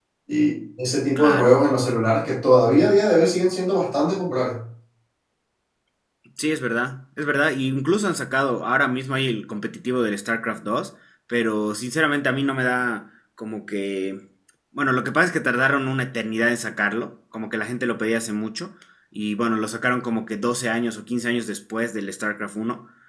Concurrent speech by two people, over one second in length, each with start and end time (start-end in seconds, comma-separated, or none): none